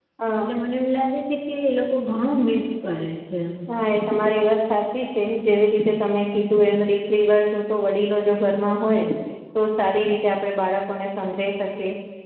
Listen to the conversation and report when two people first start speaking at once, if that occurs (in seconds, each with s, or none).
none